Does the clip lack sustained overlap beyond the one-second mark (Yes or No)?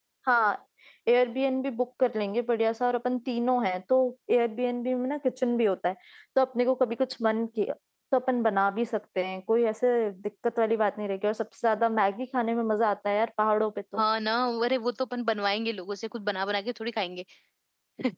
Yes